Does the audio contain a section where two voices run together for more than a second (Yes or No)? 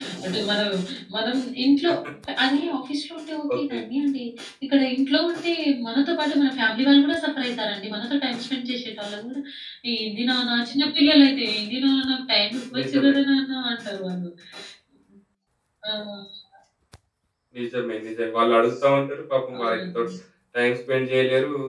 No